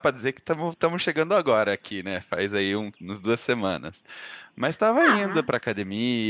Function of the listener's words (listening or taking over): listening